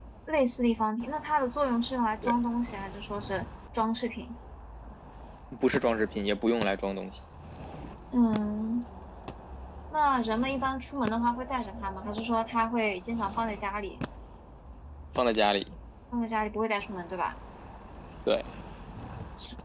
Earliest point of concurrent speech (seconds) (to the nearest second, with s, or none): none